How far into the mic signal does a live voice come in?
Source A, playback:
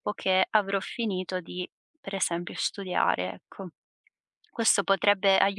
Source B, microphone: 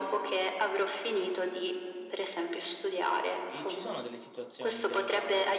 3.4 s

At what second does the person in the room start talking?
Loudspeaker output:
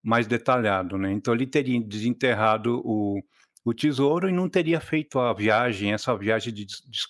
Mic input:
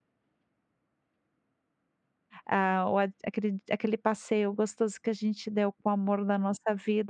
2.5 s

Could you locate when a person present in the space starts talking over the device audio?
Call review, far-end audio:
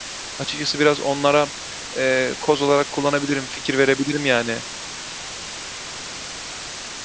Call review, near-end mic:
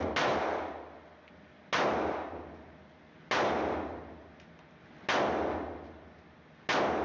none

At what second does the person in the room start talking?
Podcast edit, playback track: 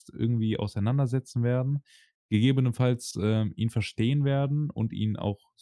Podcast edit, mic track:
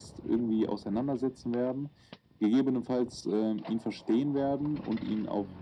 none

